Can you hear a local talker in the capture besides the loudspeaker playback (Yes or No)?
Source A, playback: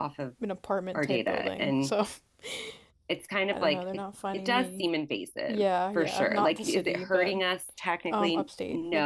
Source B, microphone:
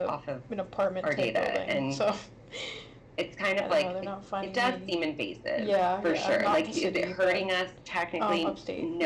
No